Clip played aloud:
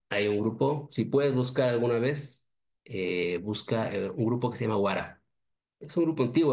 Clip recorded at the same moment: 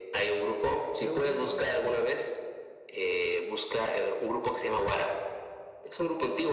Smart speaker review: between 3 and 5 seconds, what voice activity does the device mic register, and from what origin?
echo only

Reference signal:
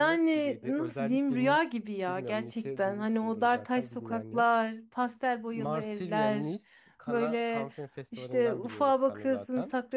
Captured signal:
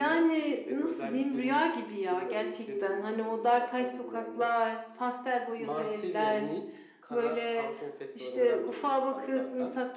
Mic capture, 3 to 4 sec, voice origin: echo only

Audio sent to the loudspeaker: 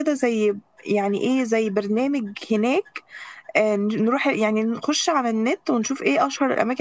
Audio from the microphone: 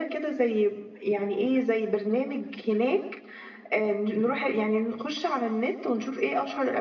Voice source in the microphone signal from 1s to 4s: echo only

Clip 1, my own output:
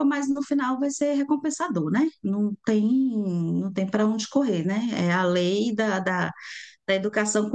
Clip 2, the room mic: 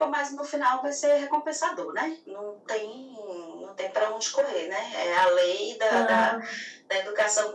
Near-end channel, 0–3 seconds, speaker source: echo only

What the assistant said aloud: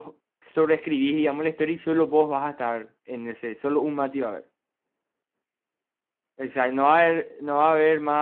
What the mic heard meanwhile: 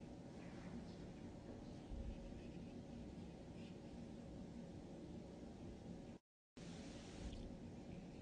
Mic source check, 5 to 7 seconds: neither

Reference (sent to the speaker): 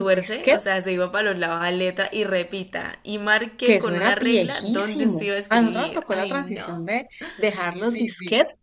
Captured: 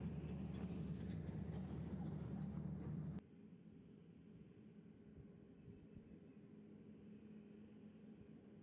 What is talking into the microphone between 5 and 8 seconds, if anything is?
neither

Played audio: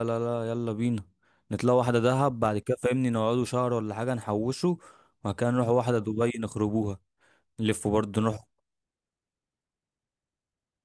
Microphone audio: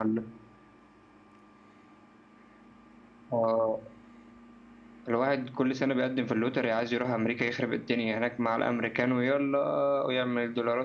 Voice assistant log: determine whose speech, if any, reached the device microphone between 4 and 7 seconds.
user only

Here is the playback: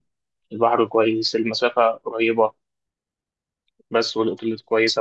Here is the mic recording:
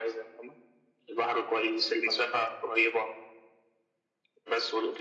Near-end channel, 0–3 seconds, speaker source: echo only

